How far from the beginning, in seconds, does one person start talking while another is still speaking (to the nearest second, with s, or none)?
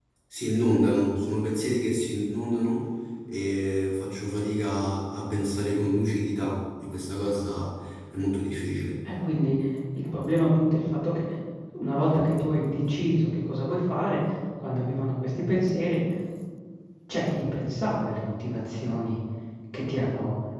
none